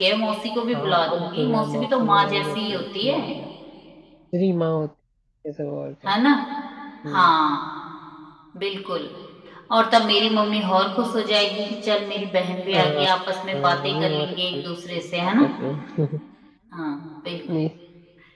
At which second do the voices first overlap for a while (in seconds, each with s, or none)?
0.7 s